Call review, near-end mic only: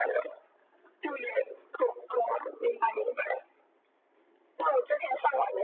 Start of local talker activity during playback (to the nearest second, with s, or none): none